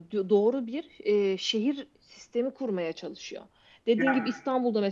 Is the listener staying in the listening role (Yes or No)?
Yes